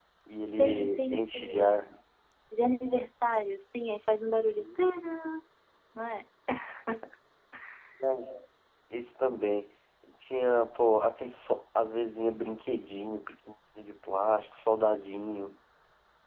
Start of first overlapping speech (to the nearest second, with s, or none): 1 s